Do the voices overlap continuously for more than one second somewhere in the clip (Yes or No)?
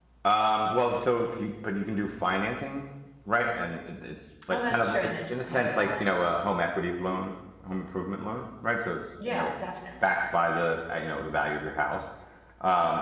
Yes